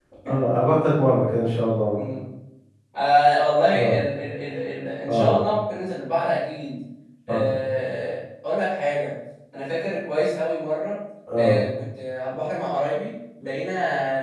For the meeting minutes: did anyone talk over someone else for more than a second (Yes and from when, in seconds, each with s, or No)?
No